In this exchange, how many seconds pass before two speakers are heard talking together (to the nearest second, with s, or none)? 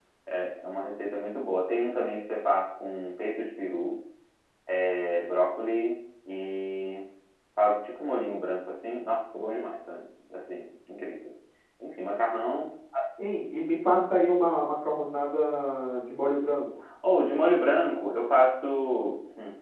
none